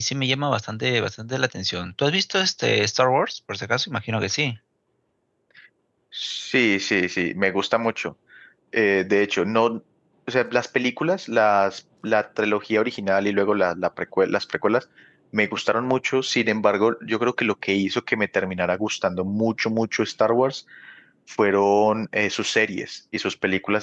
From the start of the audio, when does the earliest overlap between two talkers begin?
none

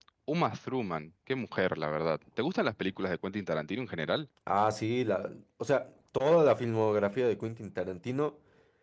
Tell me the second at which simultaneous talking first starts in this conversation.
none

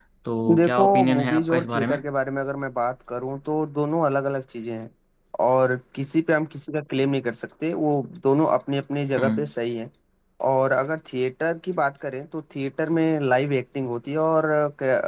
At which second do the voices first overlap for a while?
0.6 s

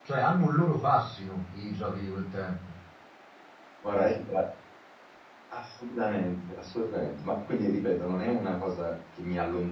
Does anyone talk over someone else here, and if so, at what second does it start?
none

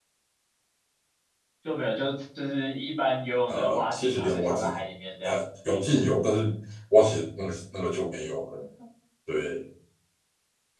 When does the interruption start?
3.5 s

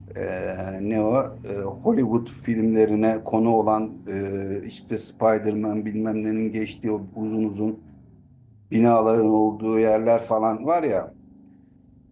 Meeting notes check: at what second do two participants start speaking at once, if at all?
none

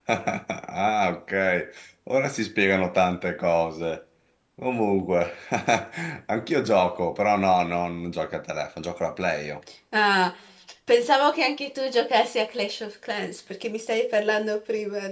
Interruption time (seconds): none

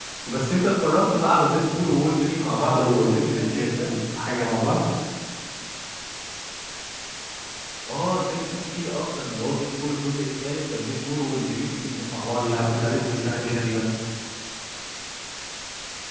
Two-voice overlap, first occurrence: 2.4 s

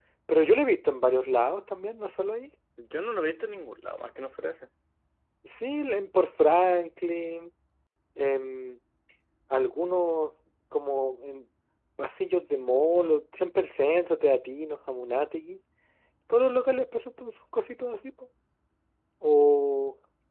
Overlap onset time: none

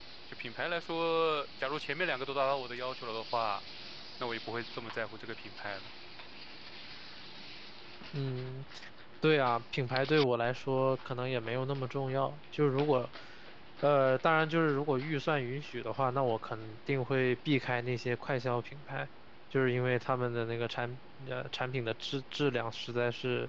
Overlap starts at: none

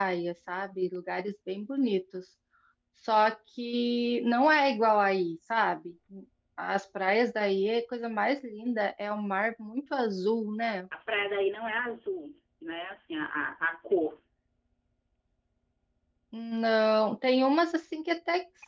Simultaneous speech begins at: none

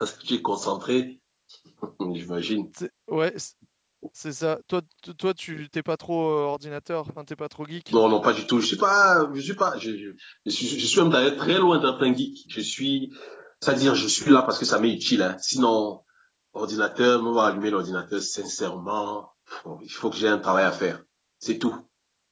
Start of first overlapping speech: none

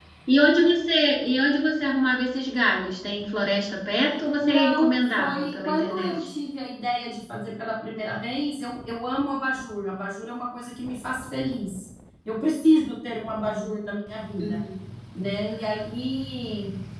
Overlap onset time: 4.4 s

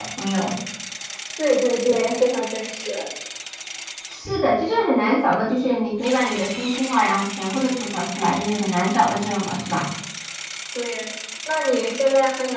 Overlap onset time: none

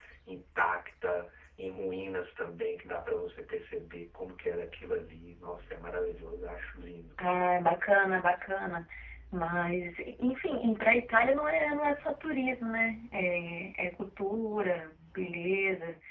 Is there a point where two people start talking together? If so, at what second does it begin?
none

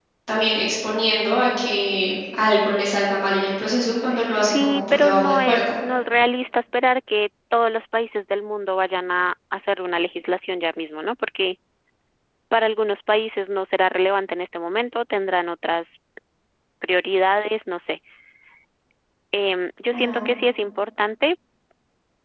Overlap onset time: 4.4 s

